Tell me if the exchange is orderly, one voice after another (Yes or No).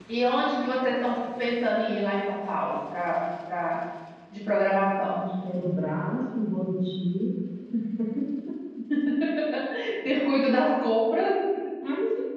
Yes